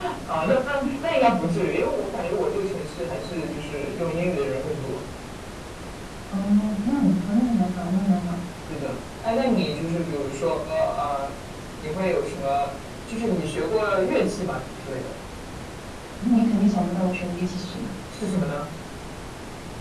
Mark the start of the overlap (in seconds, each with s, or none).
none